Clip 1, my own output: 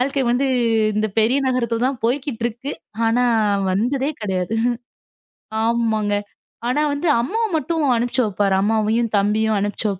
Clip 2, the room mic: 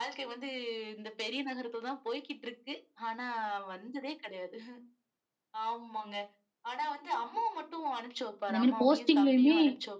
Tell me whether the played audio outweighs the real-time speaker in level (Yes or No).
No